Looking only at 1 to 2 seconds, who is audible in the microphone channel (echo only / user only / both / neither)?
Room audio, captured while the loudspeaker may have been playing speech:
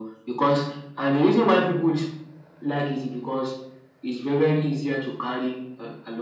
echo only